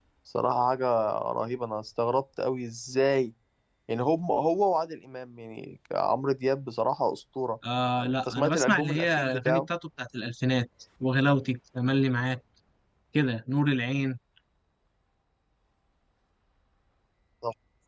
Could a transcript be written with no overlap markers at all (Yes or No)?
No